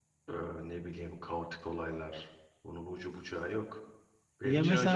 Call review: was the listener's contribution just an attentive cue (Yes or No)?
Yes